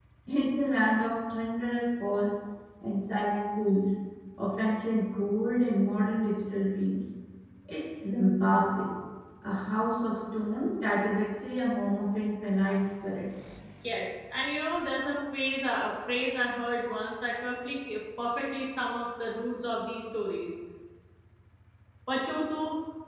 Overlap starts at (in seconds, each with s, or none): none